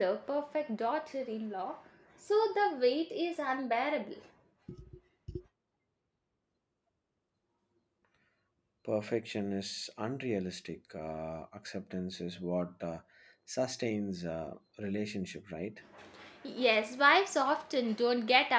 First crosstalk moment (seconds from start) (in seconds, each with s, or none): none